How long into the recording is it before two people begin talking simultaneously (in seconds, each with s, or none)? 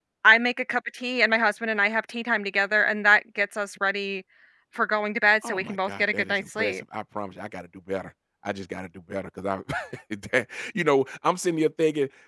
5.4 s